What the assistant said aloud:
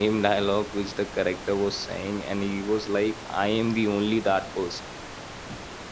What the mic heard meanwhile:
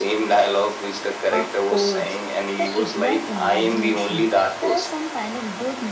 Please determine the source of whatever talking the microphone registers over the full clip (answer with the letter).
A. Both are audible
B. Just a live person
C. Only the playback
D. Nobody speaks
A